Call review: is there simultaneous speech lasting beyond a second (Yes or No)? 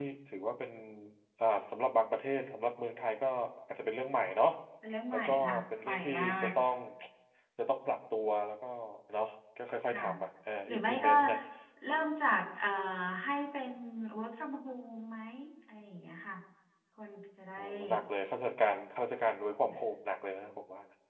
Yes